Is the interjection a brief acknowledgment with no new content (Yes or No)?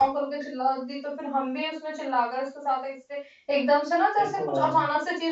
Yes